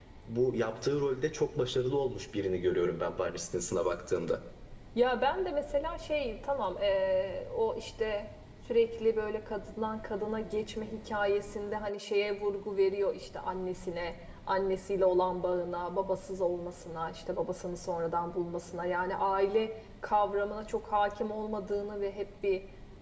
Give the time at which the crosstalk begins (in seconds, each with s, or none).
none